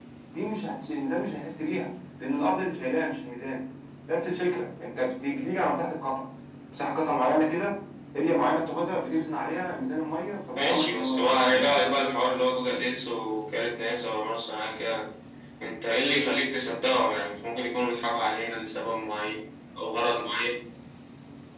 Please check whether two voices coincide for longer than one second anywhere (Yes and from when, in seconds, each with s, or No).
Yes, from 10.6 s